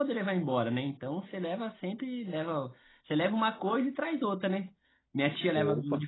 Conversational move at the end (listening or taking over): listening